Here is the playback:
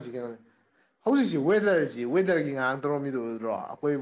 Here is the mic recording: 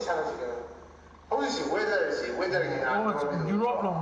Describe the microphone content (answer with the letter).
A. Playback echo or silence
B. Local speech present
B